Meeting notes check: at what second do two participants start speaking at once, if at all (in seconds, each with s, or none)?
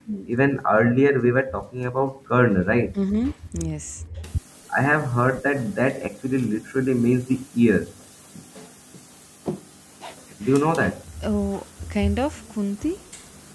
none